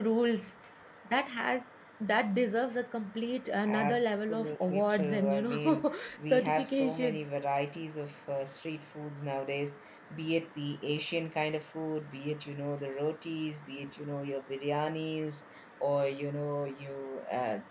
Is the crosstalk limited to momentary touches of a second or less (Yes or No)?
No